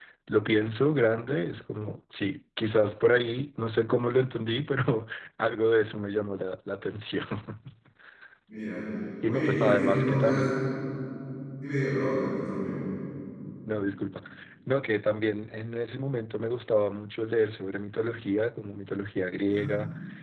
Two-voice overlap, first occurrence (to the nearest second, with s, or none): 9 s